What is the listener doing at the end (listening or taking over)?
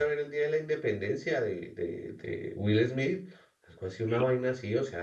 listening